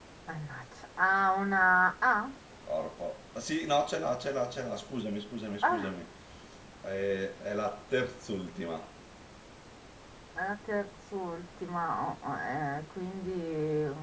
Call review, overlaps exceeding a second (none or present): none